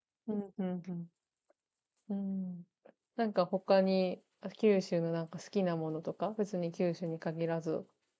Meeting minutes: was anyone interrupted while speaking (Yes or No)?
No